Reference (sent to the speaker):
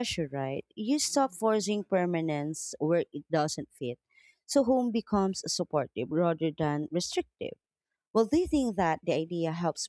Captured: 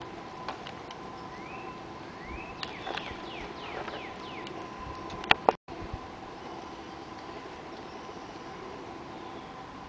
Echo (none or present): none